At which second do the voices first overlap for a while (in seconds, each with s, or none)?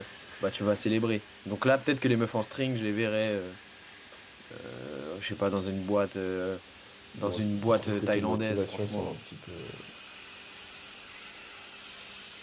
7.2 s